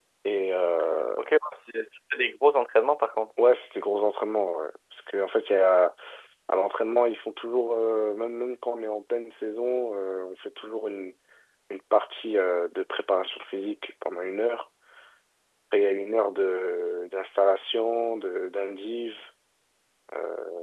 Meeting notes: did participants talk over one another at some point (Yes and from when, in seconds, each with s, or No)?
No